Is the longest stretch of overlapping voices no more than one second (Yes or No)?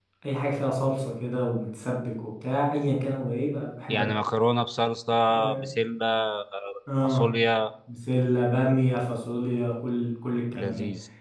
Yes